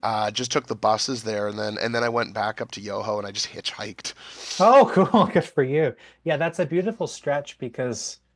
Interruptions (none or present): none